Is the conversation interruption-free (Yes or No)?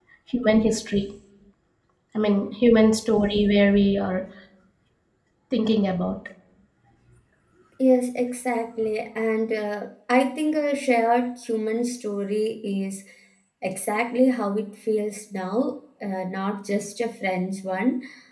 Yes